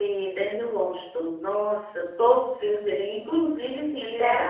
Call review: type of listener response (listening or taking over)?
listening